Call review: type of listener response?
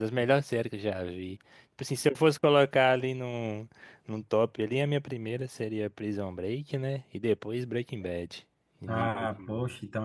taking over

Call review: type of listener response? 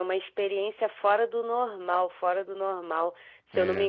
listening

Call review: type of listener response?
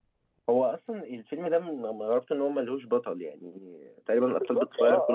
taking over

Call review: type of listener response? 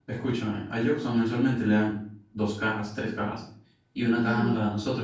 listening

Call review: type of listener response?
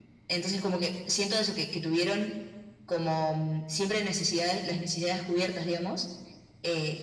listening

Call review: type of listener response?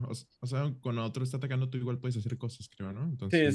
taking over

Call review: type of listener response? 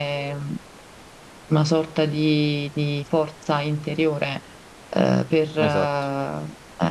listening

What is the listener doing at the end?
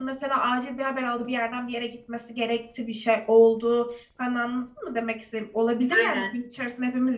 listening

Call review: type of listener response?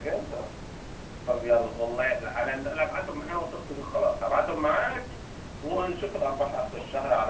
taking over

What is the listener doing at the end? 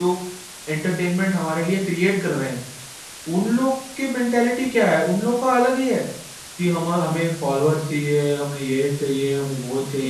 taking over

